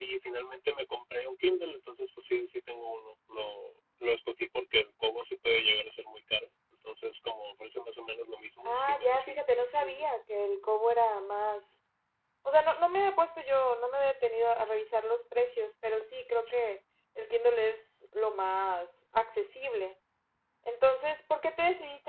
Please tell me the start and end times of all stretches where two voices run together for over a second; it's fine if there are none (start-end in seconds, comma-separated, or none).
8.7-10.0